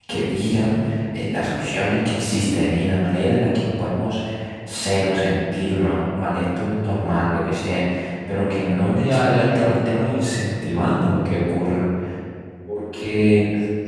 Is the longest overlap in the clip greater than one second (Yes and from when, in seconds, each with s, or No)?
Yes, from 8.9 s